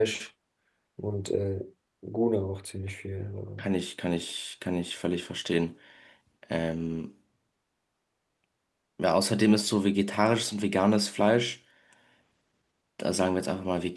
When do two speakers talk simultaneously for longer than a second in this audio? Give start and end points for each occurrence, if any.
none

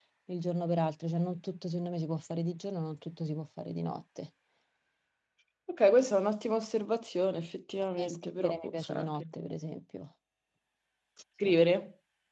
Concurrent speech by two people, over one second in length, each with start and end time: 8.0-9.2

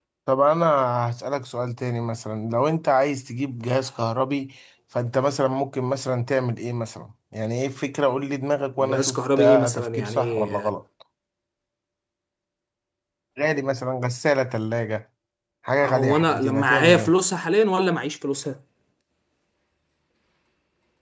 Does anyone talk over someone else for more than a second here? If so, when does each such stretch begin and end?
8.8-10.5, 15.8-17.1

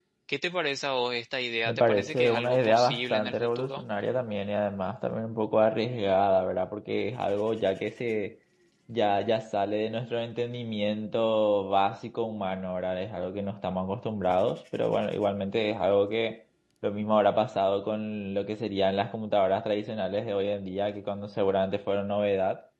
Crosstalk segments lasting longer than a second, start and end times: 1.6-3.8

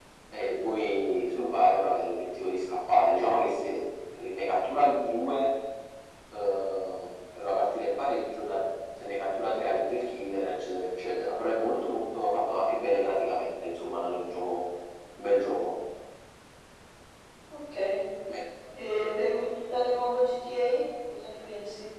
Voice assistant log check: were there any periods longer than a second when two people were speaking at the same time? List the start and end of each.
none

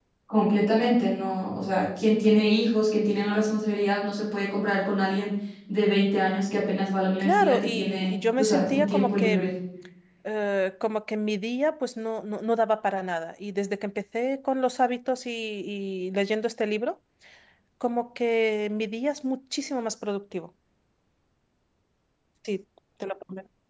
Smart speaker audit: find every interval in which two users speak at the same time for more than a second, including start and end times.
7.2-9.5

